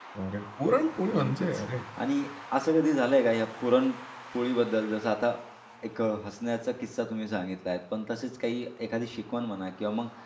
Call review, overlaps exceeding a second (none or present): none